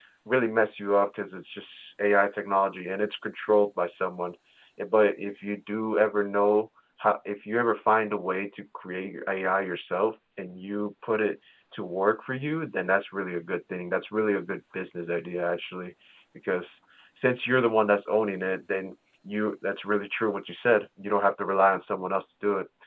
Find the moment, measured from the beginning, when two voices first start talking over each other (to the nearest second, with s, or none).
none